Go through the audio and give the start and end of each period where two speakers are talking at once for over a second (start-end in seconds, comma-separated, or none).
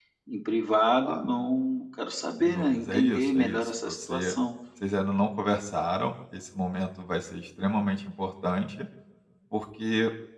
2.4-4.3